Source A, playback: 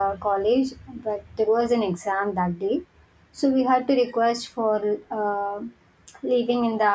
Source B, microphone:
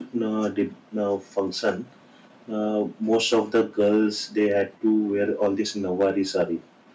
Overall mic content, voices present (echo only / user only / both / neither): user only